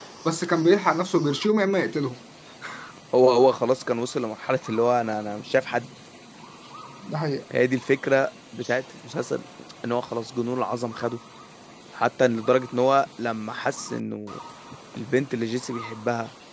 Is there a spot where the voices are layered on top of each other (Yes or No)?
No